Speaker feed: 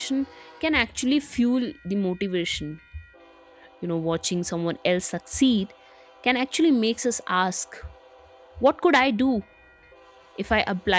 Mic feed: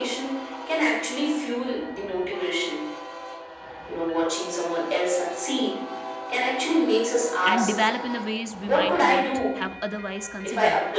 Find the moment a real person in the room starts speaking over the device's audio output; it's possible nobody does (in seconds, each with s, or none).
7.5 s